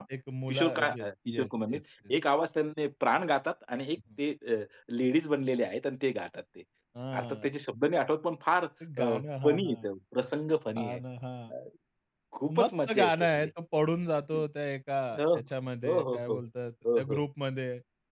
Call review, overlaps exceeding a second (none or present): present